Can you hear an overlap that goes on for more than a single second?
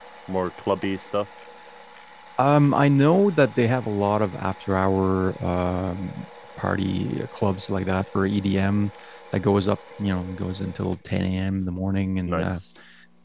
No

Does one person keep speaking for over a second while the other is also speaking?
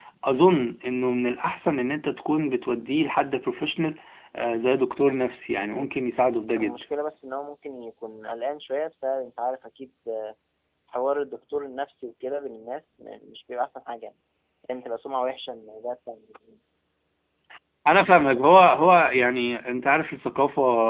No

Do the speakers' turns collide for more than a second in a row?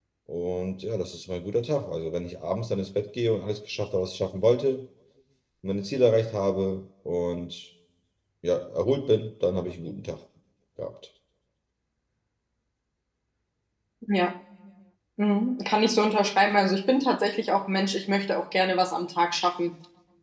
No

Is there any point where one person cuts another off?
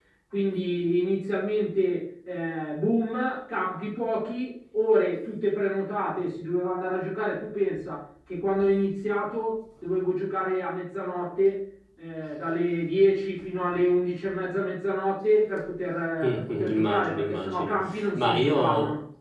Yes, from 16.2 s

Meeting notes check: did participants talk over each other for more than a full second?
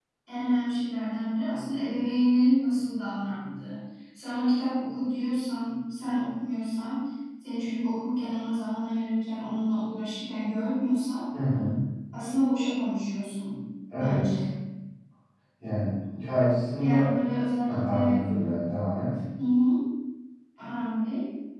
No

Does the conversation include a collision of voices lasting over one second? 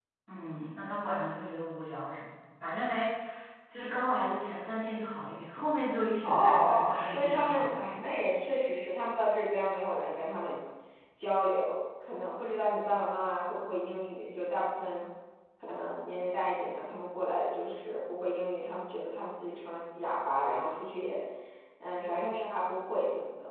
Yes, from 6.2 s

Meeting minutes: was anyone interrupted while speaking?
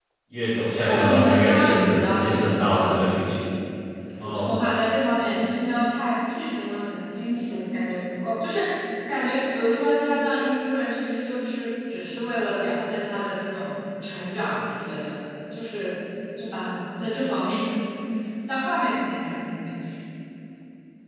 Yes, from 0.8 s

